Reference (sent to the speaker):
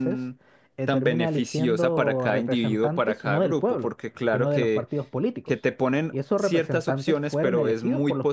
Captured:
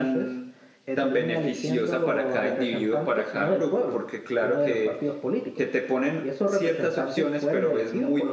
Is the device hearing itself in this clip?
Yes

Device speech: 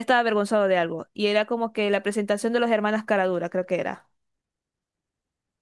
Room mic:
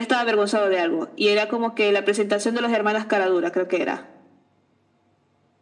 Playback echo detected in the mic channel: Yes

